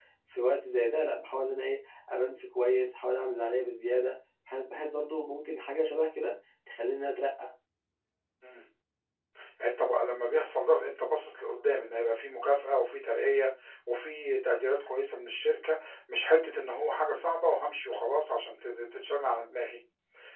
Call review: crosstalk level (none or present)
none